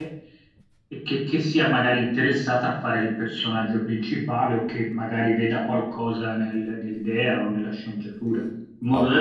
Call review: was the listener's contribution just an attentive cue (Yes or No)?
Yes